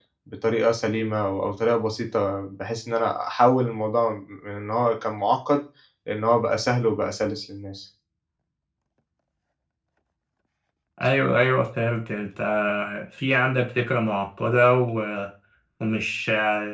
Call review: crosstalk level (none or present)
none